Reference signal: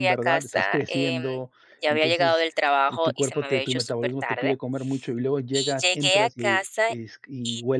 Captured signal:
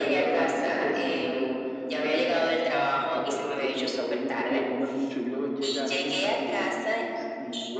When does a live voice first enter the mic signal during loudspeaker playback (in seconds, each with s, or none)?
none